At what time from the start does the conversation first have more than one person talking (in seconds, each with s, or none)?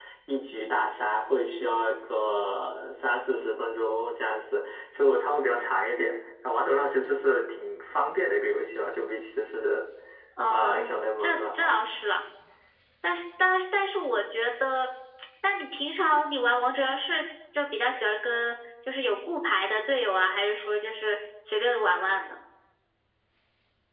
10.5 s